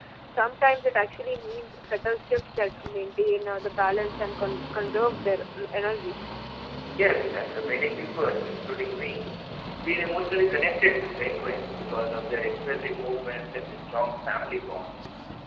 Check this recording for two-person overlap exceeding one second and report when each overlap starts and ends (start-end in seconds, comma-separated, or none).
none